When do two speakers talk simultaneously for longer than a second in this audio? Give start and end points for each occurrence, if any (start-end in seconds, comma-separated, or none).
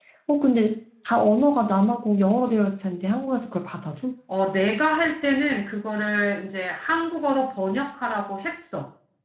none